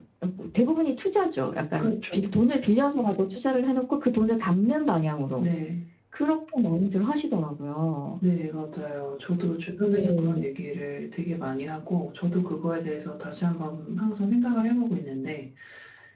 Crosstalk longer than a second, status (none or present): none